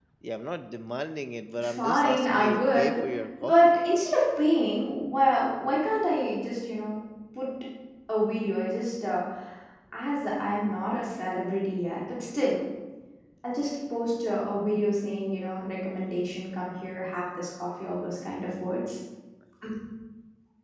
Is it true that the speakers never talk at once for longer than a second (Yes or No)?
No